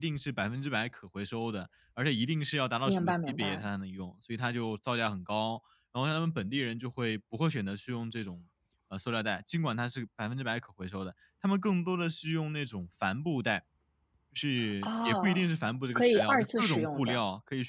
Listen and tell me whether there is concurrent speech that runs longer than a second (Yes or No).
Yes